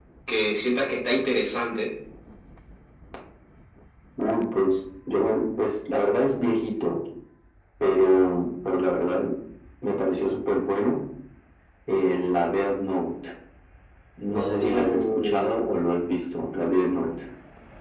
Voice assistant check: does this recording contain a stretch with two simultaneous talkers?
Yes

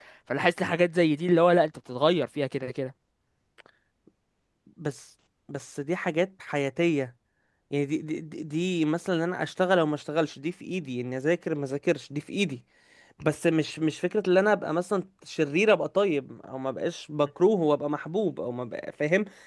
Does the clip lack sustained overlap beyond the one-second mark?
Yes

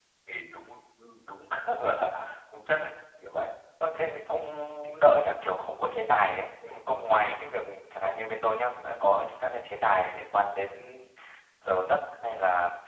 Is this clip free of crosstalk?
Yes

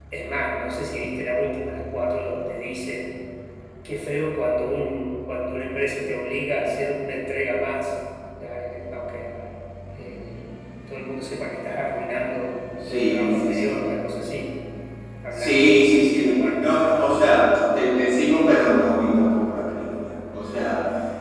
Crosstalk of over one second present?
Yes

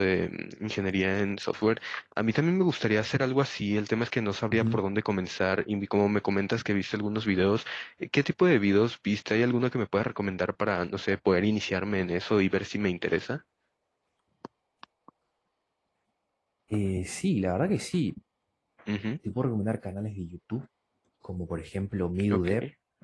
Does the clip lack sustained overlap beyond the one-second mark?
Yes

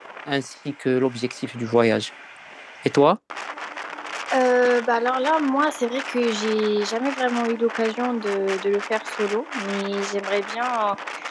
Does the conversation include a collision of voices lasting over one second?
No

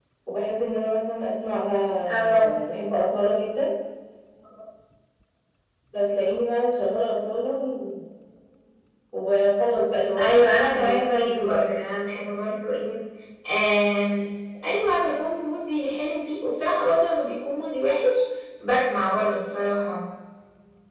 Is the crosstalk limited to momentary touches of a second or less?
No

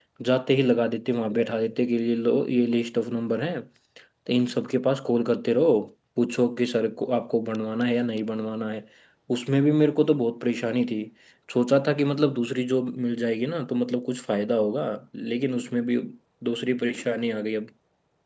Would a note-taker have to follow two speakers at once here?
No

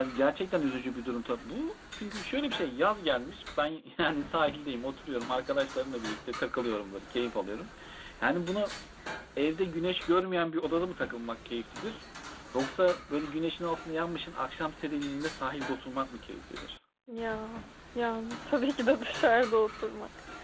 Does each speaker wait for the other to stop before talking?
Yes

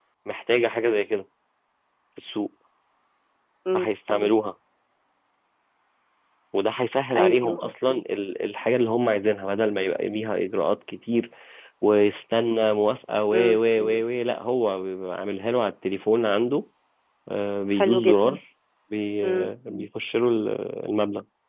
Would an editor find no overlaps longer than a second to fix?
Yes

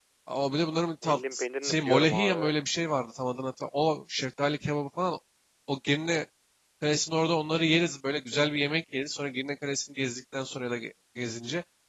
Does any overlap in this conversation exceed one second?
Yes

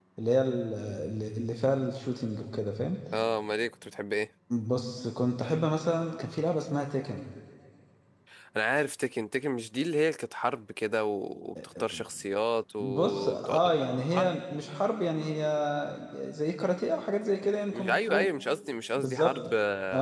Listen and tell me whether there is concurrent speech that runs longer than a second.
Yes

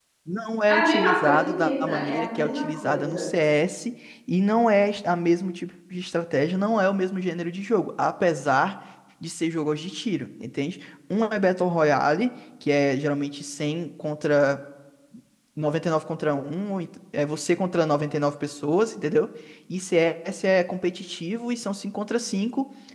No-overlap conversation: No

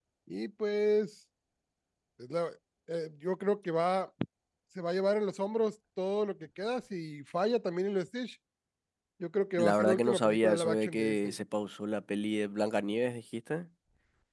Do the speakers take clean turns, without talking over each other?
No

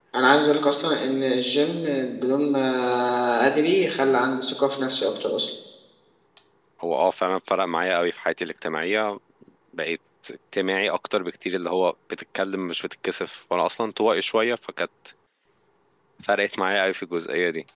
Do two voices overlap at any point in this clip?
No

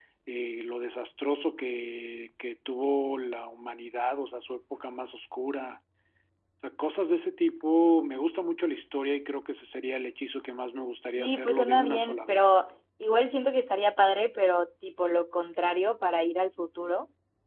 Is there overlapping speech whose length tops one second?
Yes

